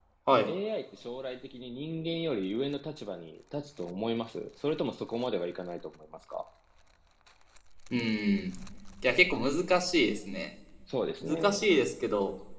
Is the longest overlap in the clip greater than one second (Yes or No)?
No